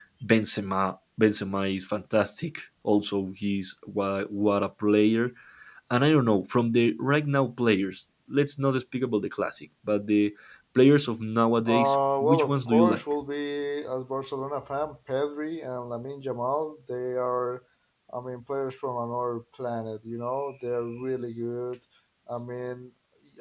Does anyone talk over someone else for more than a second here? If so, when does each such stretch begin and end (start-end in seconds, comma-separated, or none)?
11.7-13.0